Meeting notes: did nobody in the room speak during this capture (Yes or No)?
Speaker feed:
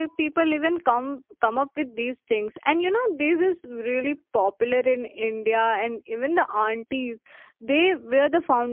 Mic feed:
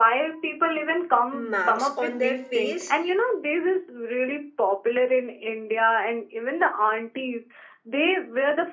No